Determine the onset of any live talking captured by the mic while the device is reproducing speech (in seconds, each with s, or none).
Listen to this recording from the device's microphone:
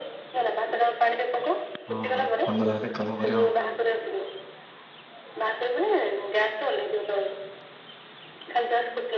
1.9 s